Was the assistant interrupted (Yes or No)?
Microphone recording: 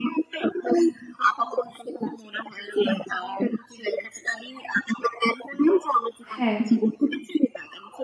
Yes